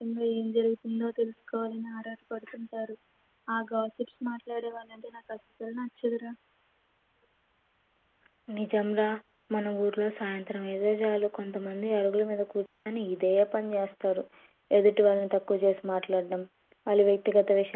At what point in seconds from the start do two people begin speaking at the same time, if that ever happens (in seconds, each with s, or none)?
none